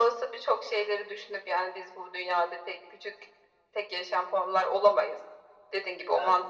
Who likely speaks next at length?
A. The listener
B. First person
B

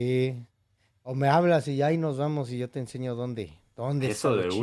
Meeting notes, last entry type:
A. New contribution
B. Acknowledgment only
A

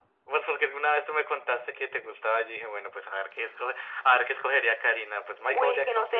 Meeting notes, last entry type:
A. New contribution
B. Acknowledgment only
A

